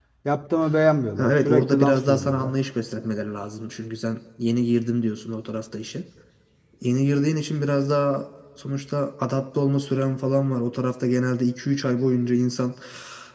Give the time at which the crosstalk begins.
1.2 s

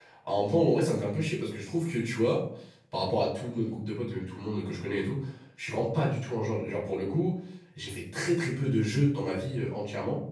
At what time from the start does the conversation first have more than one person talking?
none

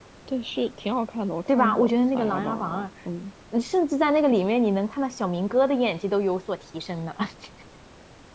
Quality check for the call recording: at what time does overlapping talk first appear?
1.5 s

